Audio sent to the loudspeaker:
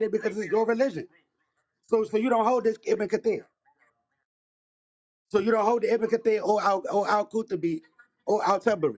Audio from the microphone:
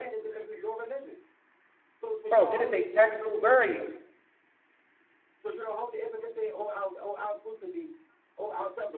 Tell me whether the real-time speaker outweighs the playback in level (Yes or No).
Yes